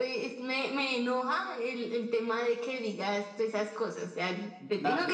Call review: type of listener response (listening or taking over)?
taking over